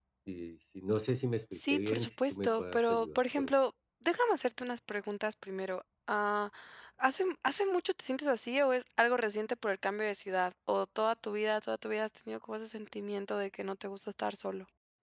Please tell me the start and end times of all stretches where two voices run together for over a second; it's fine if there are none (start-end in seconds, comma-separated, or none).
1.7-3.5